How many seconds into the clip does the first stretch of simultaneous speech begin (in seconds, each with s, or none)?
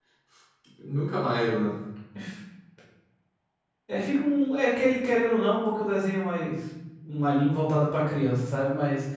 none